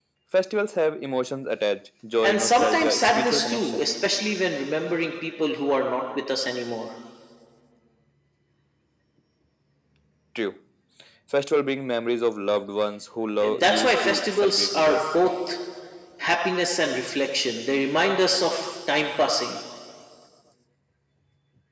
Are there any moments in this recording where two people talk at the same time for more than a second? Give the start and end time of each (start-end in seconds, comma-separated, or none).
2.2-3.9, 13.5-15.0